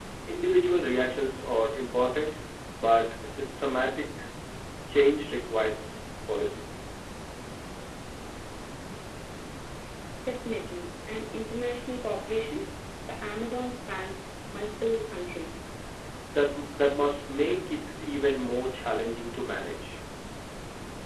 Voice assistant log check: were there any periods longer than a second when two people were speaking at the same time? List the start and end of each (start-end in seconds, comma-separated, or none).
none